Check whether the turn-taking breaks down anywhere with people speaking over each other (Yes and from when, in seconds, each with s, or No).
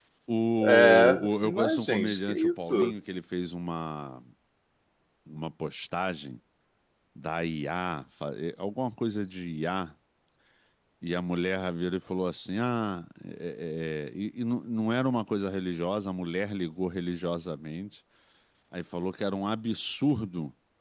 Yes, from 0.6 s